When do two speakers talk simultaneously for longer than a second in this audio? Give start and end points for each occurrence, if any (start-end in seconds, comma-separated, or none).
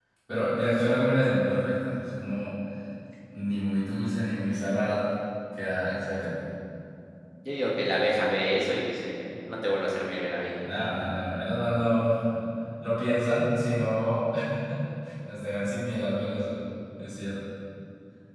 none